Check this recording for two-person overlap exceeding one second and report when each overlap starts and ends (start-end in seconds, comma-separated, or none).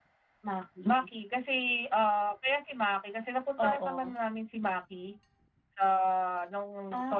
none